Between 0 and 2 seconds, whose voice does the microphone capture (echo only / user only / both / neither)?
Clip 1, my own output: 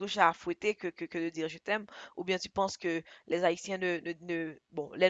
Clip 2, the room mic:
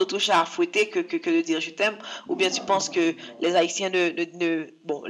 echo only